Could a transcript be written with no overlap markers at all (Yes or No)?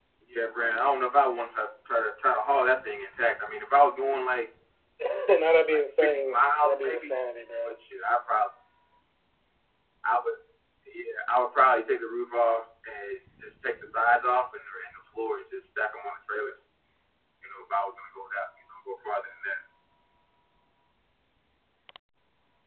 No